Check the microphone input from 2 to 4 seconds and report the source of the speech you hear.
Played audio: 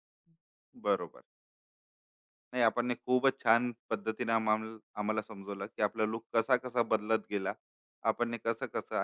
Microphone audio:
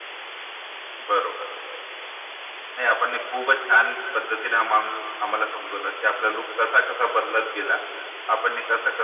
echo only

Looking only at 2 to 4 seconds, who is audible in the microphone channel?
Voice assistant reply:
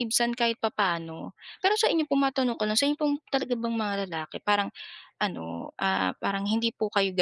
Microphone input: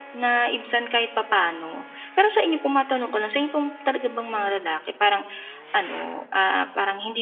echo only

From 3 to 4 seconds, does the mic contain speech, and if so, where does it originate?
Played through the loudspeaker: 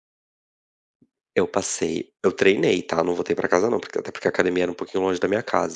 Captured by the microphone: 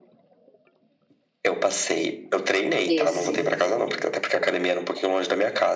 both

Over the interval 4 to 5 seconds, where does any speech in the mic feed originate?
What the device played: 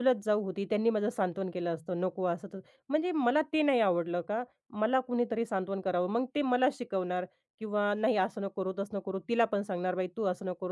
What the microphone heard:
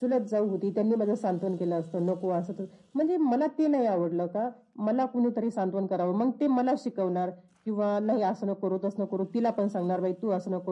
echo only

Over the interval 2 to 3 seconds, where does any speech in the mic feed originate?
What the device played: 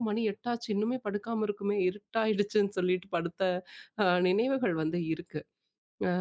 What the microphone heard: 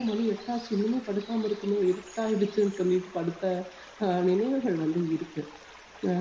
echo only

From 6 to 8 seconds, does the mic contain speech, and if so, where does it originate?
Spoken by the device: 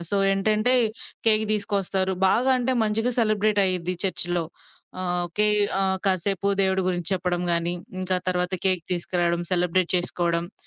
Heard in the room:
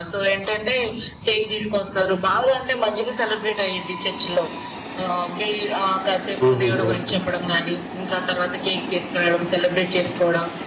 both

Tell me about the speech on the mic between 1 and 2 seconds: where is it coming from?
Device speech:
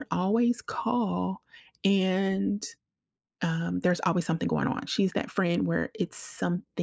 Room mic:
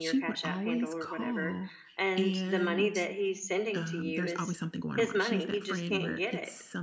both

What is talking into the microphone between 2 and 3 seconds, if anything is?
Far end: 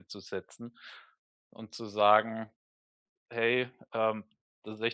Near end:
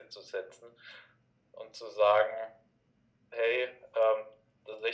echo only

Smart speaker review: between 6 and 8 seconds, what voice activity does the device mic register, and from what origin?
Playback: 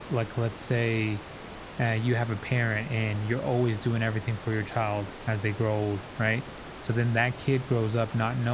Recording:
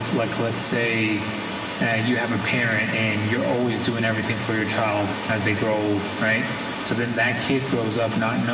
echo only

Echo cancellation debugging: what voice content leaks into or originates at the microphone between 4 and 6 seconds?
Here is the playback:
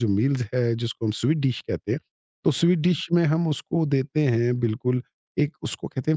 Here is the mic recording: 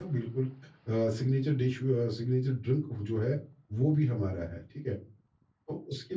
user only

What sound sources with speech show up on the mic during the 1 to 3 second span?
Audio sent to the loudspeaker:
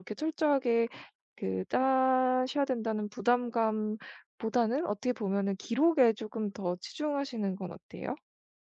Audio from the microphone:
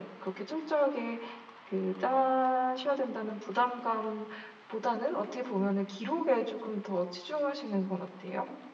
echo only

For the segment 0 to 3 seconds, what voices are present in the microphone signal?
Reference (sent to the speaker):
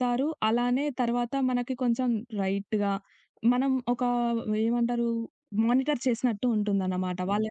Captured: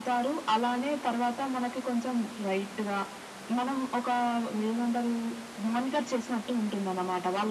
echo only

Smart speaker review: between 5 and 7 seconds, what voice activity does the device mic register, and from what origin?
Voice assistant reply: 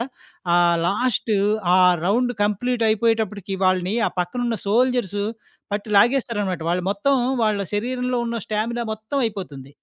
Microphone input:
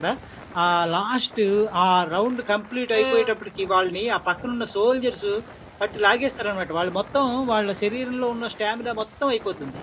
echo only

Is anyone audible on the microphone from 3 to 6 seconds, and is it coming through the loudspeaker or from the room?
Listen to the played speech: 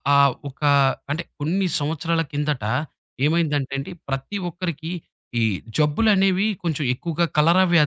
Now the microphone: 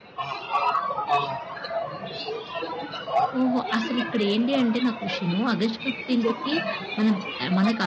both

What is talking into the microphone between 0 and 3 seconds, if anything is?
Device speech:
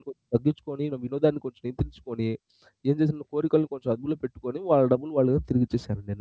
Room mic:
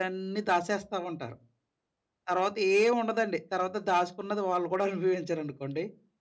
user only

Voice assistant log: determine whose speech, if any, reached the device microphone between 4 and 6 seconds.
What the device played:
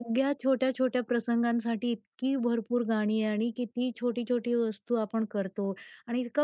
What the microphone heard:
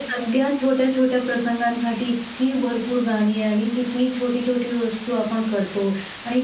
echo only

